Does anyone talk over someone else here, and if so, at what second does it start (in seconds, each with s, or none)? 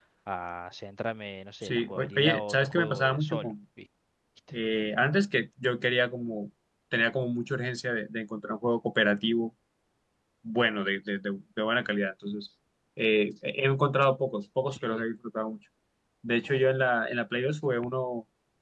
1.6 s